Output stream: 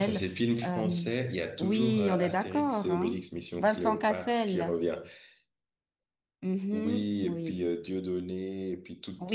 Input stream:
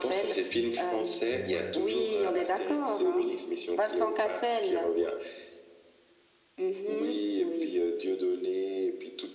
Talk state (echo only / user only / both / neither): both